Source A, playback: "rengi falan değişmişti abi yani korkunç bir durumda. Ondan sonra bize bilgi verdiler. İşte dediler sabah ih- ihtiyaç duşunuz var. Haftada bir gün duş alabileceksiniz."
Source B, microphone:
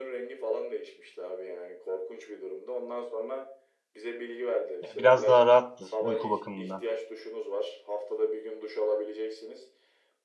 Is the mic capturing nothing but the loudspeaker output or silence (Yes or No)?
No